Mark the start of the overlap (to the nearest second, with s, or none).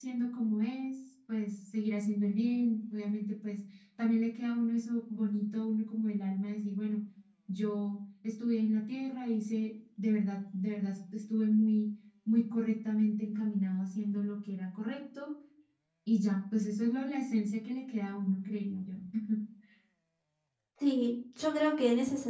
none